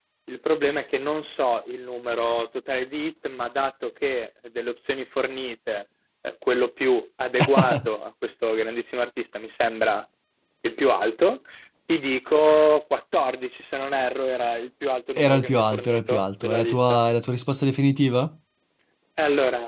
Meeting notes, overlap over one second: present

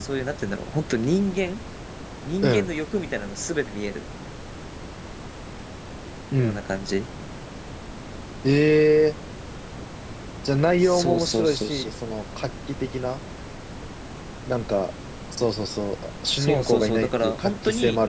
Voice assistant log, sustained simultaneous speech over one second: present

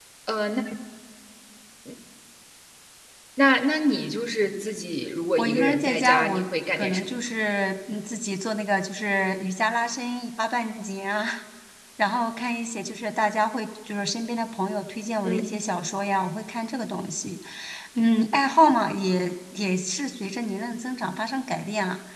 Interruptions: present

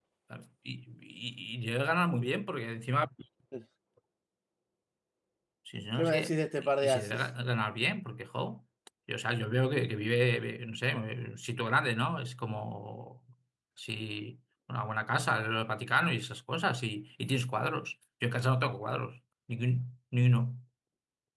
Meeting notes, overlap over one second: present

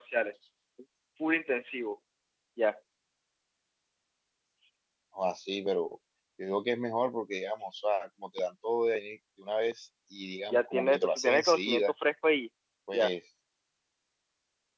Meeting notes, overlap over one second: present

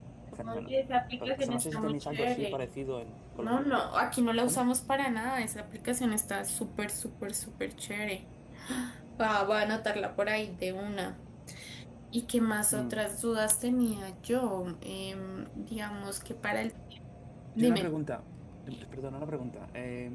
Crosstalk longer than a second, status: present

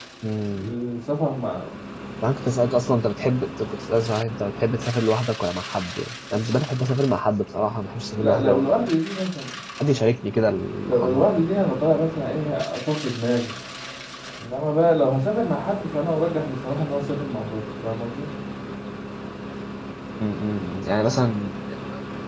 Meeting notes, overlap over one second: none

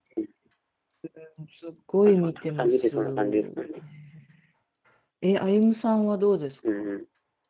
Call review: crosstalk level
present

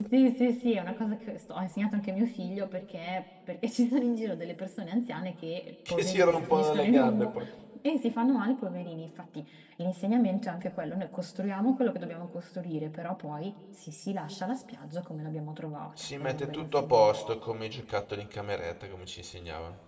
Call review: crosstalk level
present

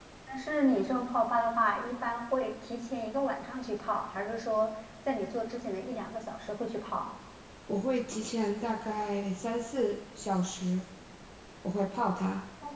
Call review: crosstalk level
none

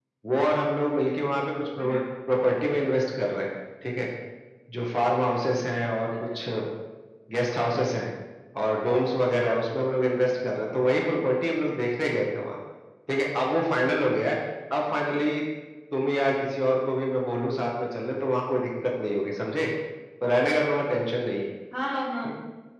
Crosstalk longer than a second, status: none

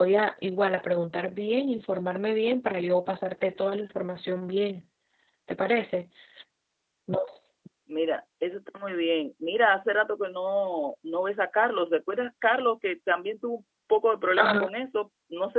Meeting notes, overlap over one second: none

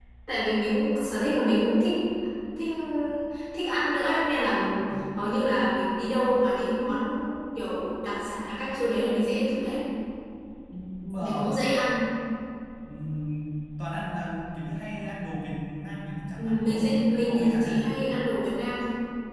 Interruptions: present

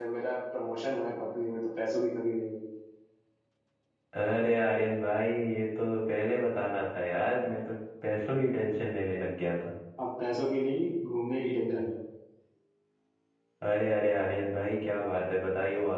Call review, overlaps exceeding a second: none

